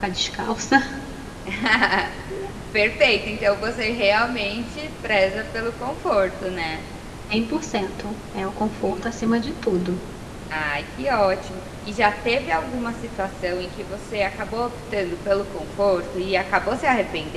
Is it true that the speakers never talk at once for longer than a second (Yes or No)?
Yes